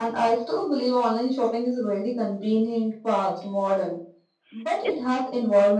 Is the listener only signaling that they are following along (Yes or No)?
Yes